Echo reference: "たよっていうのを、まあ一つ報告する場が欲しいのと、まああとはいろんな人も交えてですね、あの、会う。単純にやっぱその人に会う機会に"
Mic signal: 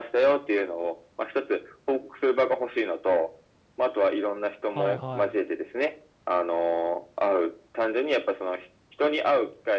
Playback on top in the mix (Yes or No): Yes